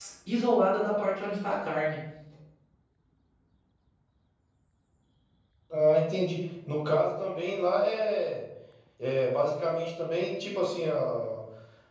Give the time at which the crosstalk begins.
none

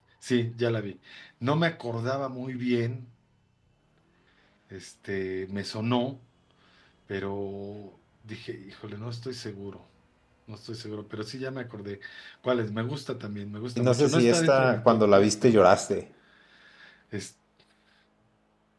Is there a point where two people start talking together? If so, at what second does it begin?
14 s

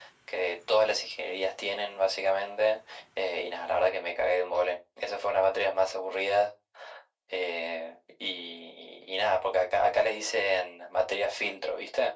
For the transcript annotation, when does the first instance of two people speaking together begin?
none

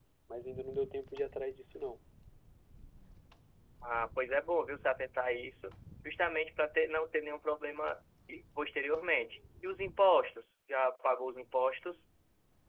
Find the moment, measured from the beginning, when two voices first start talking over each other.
none

